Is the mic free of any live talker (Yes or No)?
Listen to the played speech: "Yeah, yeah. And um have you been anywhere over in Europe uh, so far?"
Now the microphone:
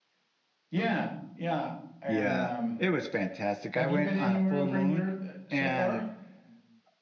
No